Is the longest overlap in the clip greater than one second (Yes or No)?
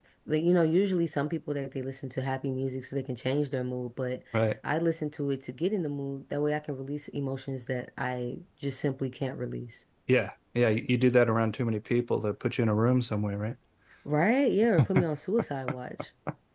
No